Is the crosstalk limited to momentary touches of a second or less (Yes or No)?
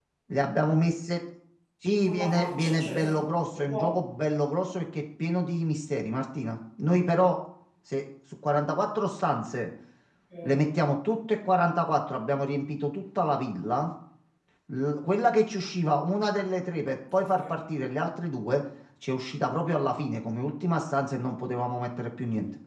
No